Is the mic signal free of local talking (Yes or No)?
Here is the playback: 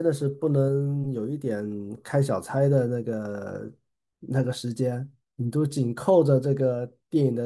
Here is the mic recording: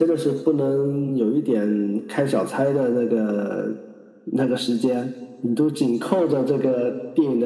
Yes